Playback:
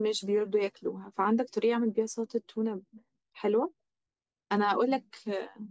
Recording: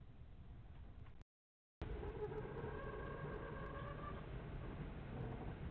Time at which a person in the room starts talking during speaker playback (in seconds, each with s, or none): none